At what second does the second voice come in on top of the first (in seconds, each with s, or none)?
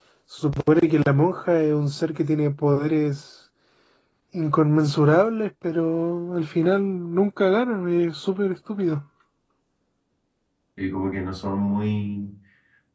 none